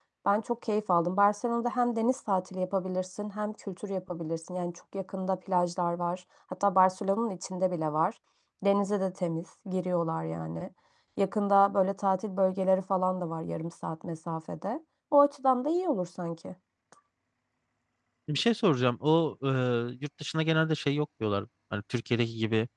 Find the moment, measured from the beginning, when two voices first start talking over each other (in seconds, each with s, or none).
none